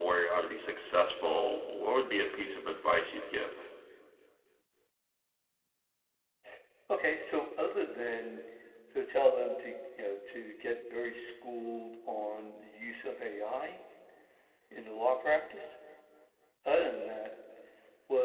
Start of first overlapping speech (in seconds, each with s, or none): none